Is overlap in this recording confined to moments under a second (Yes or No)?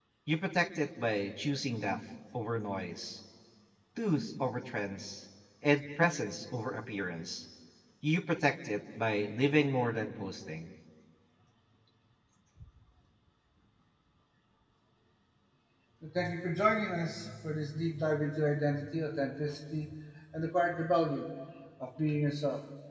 Yes